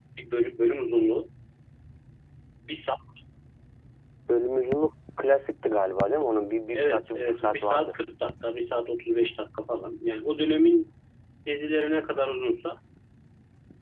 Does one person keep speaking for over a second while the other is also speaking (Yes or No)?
Yes